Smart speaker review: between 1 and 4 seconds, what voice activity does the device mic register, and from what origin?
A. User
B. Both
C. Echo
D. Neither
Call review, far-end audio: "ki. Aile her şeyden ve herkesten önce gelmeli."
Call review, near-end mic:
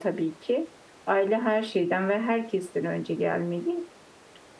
C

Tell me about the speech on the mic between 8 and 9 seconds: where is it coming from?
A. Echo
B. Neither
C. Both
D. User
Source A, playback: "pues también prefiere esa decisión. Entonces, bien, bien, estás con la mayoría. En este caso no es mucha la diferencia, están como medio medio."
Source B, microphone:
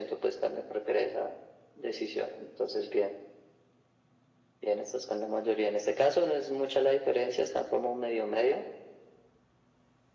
A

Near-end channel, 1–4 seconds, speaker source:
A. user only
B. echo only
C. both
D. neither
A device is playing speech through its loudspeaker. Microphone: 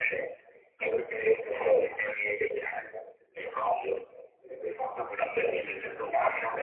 B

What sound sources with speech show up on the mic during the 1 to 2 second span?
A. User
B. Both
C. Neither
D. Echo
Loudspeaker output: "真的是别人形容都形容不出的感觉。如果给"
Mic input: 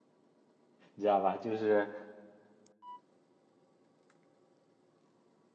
A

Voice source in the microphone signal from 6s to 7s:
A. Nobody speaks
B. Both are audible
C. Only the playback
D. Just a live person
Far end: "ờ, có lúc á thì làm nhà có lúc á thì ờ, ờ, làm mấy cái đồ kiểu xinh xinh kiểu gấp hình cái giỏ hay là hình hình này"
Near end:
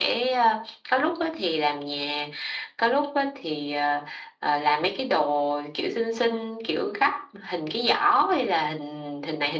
C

